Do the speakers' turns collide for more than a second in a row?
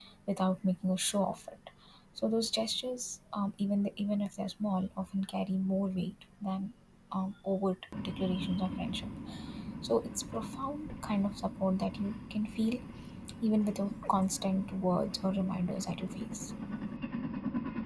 No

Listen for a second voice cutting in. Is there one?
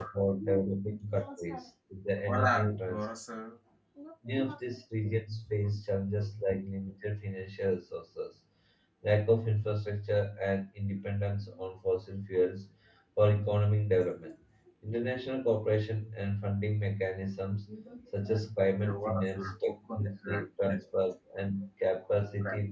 Yes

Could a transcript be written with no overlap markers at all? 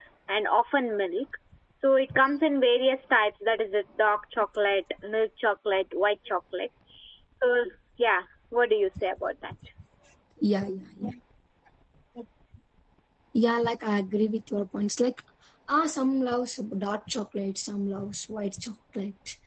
Yes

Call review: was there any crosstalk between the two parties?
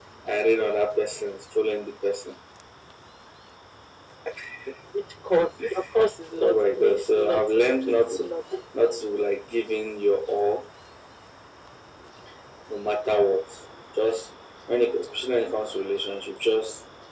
Yes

